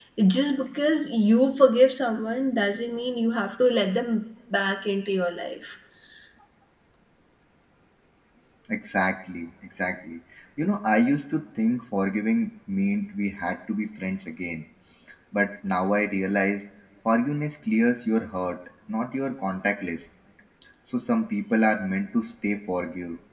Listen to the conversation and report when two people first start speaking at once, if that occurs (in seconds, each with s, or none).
none